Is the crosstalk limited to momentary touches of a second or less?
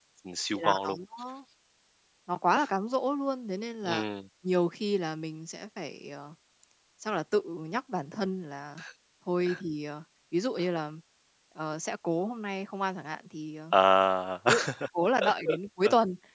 Yes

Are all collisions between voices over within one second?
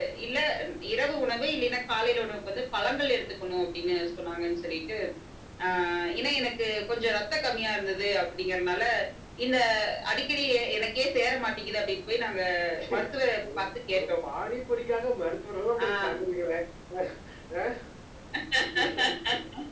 Yes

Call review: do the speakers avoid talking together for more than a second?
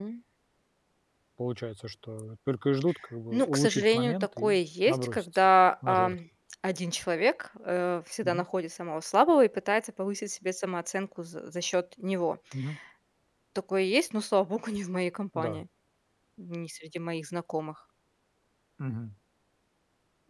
No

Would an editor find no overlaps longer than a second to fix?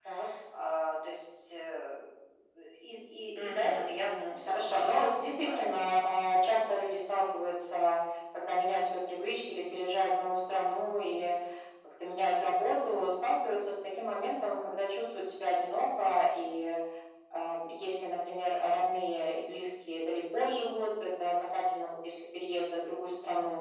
No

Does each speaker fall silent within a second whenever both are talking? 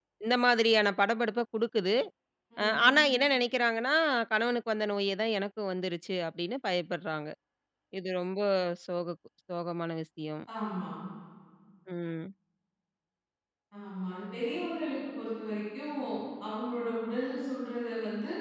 Yes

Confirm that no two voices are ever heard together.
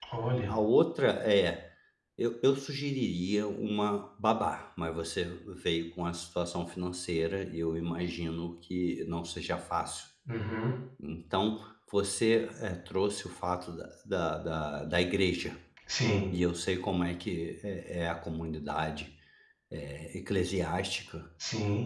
Yes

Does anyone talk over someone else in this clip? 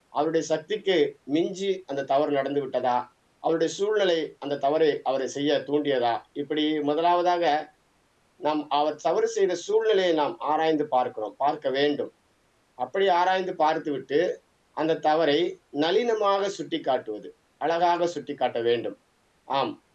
No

